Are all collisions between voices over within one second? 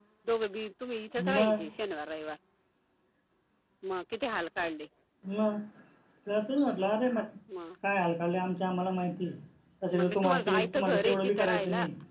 No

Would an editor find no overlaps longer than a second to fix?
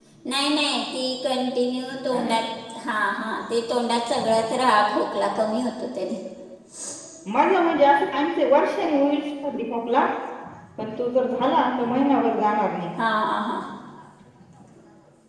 Yes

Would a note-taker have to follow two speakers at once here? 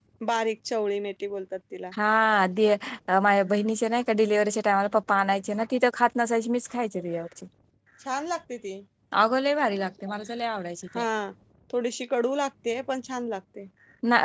No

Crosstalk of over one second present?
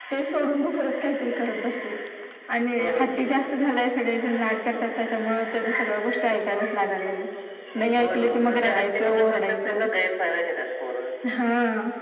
Yes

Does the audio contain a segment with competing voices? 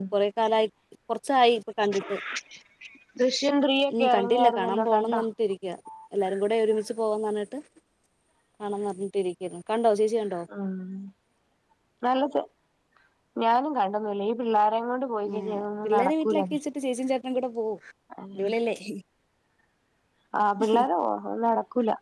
Yes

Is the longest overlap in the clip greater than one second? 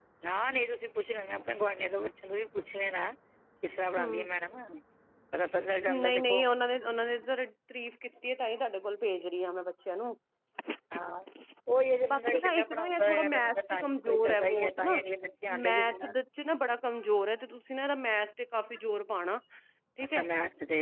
Yes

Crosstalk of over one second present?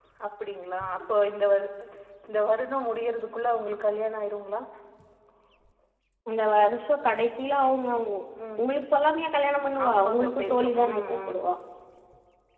Yes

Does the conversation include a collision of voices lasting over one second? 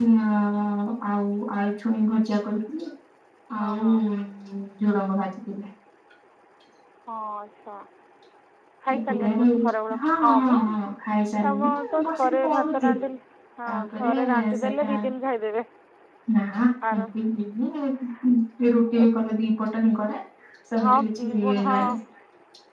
Yes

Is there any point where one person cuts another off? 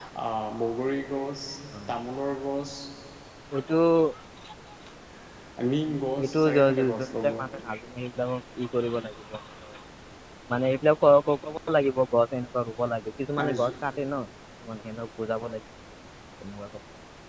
Yes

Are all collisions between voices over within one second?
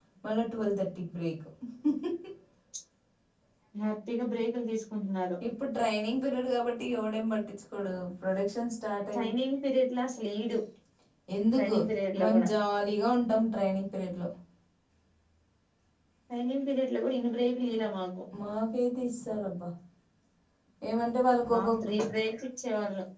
Yes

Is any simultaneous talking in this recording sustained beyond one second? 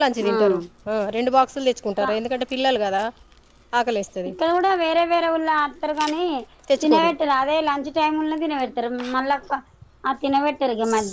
No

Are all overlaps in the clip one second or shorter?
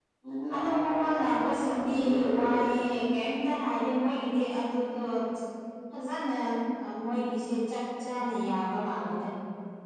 No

